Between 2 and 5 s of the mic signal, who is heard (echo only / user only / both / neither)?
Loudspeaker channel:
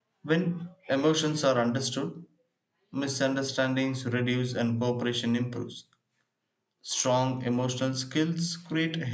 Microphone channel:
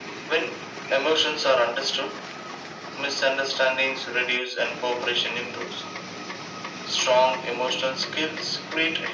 echo only